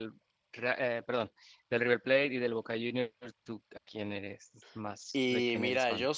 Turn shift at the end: Yes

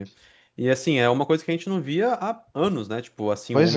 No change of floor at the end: Yes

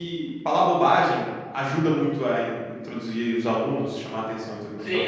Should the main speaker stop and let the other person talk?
Yes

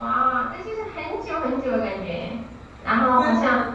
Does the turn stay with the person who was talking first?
No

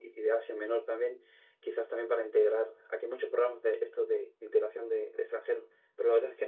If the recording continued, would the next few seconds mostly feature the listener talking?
No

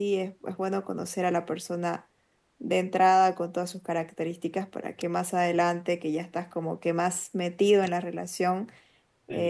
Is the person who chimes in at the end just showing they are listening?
Yes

